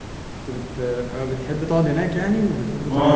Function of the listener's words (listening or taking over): taking over